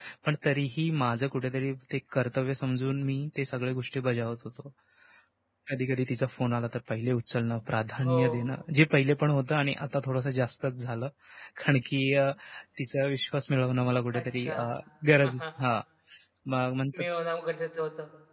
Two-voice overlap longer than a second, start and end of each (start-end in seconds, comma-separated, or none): none